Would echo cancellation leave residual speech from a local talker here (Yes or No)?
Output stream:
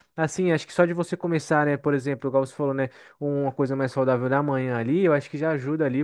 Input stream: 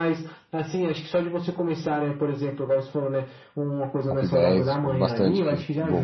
Yes